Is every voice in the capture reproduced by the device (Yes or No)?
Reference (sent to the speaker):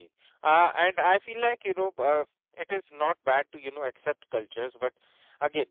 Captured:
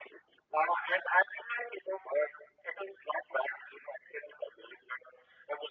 Yes